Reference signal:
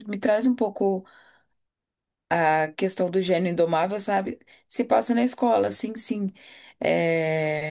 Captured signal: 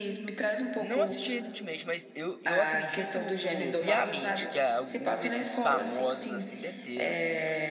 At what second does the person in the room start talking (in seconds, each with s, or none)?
0.8 s